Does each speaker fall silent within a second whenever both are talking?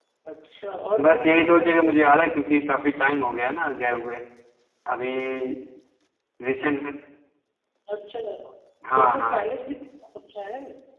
No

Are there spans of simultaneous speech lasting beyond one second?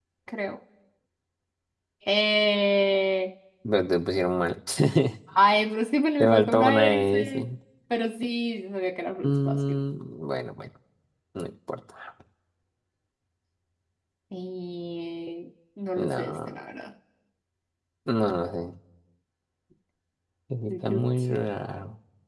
Yes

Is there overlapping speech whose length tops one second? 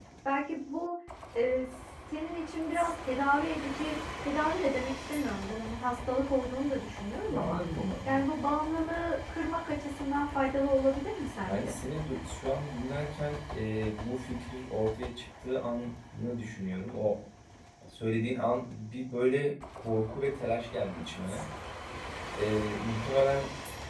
No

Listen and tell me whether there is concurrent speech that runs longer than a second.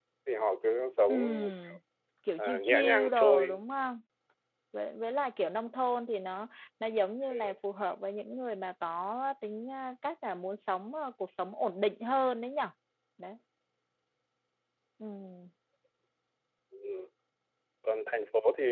Yes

